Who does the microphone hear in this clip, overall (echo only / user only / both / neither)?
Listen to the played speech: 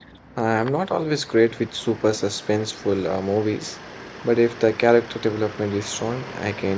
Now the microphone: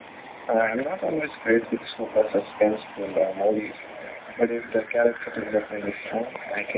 echo only